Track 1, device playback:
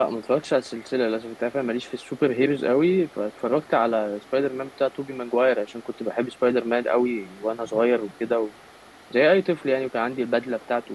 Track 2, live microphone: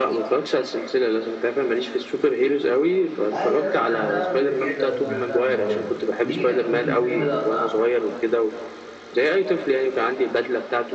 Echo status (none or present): present